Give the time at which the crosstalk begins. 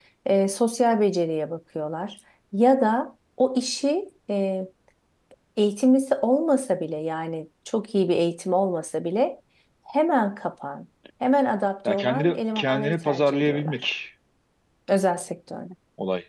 11.8 s

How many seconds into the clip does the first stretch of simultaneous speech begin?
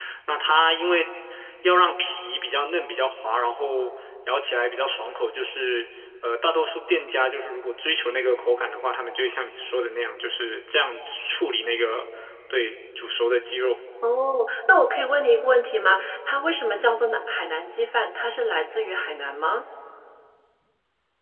none

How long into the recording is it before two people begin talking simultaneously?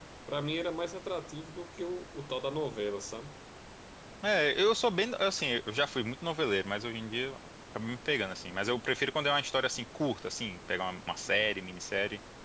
none

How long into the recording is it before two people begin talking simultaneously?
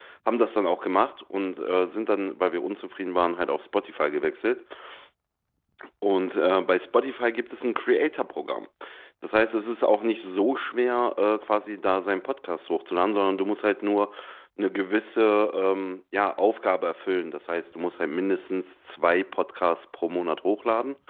none

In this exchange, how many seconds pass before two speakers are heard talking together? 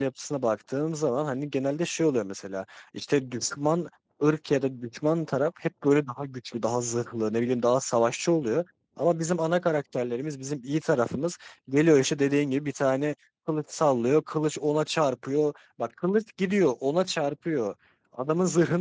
none

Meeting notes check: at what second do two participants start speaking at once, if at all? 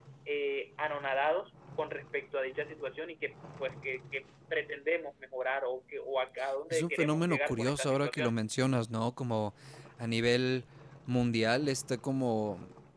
6.7 s

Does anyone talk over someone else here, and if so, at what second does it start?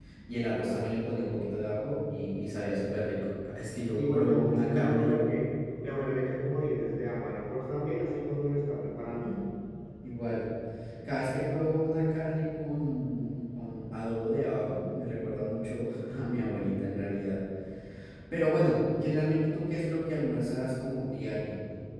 3.9 s

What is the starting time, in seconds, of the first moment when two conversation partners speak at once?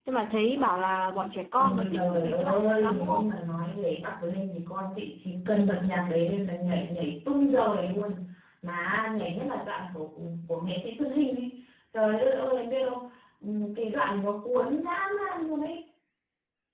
1.6 s

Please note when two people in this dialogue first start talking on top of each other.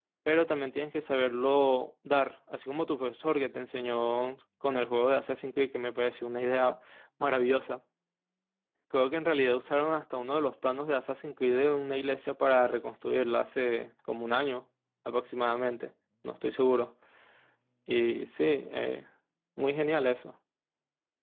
none

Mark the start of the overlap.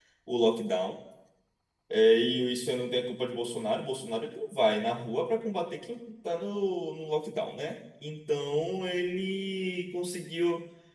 none

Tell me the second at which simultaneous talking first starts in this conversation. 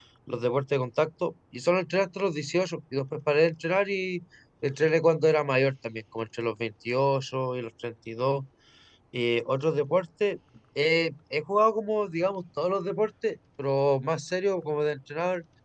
none

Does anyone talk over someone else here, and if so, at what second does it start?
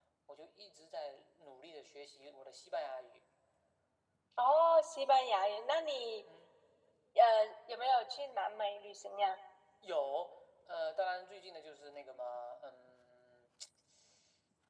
none

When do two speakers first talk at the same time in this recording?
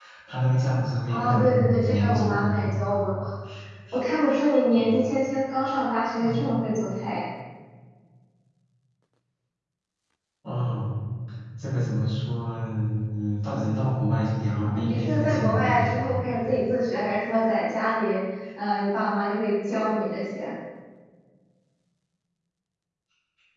1.1 s

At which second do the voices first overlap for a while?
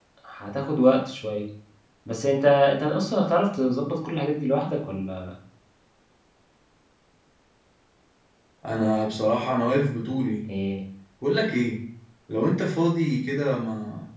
none

